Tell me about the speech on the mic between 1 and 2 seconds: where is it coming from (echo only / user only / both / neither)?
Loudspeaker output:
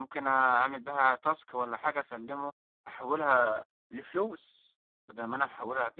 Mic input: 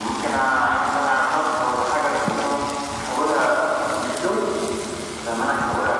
echo only